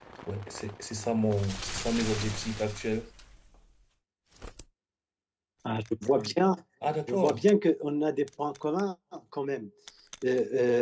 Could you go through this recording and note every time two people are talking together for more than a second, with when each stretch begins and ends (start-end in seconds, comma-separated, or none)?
none